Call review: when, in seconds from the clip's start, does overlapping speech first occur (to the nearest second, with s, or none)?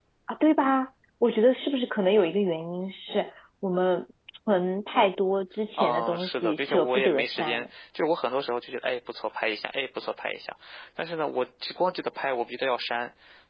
6 s